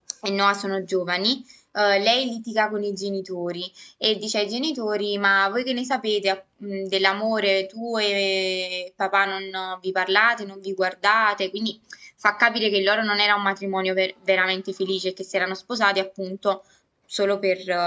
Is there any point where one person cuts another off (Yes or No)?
No